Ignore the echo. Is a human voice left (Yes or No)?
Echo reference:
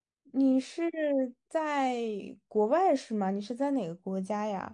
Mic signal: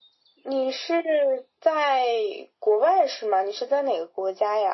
No